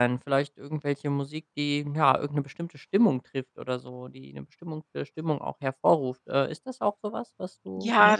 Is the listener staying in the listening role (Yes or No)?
No